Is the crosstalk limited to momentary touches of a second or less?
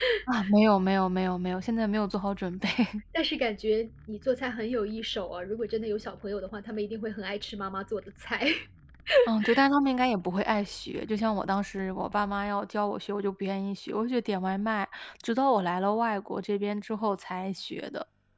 Yes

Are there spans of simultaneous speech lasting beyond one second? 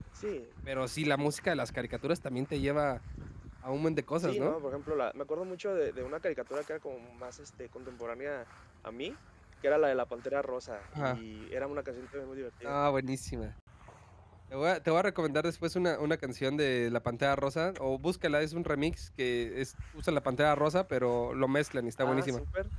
No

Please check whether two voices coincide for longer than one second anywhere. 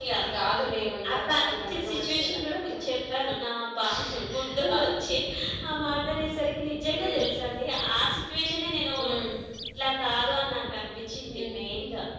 Yes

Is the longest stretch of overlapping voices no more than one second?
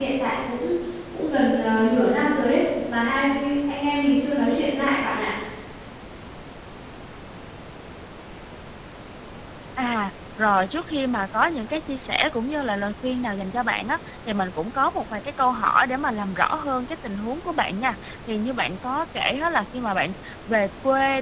Yes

